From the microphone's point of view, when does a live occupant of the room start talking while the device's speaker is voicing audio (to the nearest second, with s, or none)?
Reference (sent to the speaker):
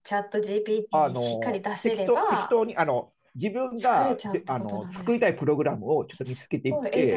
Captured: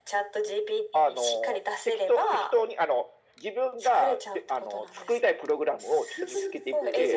6 s